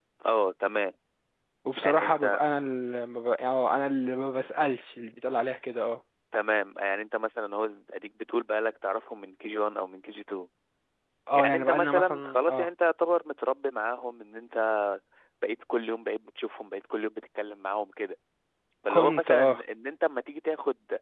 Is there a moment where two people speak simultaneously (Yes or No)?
Yes